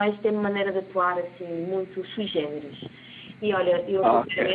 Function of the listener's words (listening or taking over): listening